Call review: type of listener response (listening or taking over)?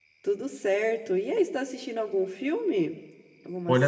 taking over